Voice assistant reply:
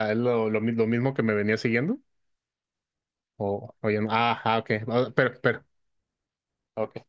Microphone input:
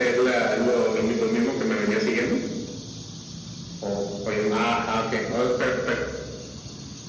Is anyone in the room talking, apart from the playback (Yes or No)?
No